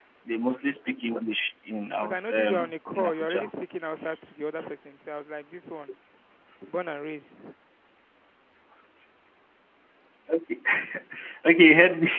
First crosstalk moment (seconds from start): 2 s

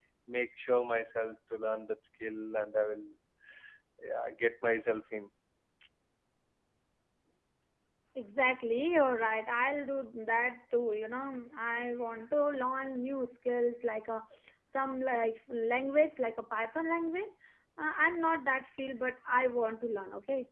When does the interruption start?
none

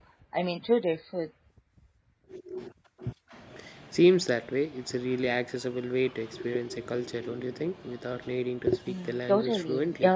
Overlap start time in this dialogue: 9 s

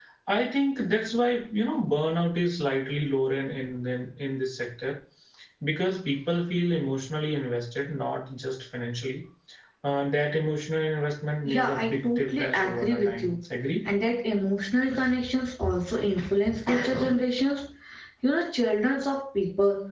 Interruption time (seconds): 11 s

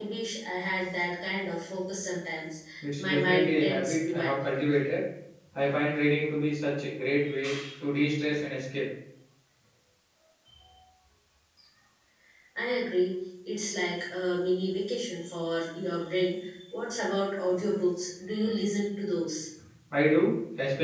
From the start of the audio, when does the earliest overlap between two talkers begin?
3 s

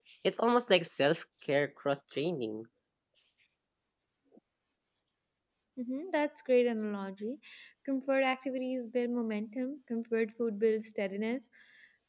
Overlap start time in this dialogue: none

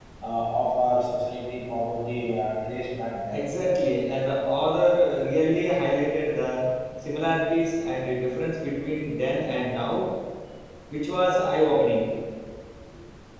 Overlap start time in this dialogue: none

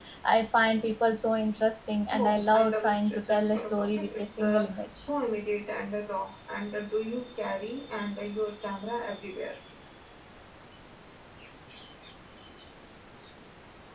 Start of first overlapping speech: 2 s

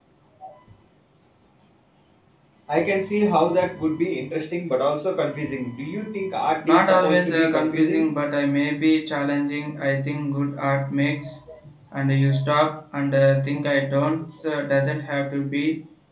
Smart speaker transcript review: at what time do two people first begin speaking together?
7 s

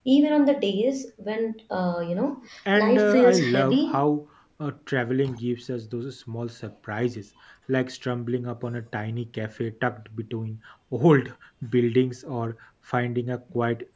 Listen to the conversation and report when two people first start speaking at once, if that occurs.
3 s

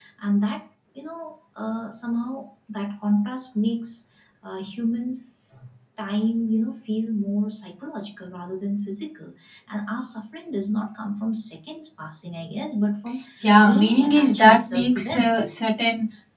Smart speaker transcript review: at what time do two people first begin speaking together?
14 s

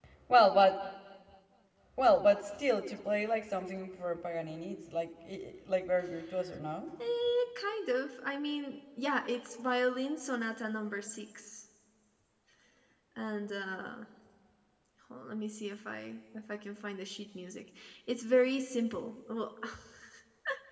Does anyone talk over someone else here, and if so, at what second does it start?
none

